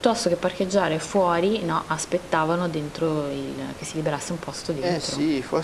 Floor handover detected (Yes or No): Yes